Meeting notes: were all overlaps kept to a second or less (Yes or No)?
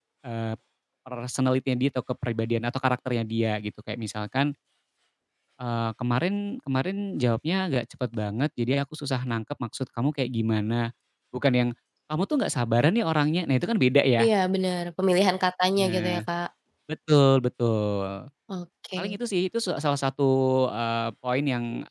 Yes